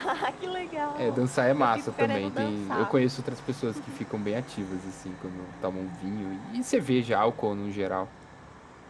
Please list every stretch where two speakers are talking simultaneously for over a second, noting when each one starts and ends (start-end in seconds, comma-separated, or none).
0.9-3.0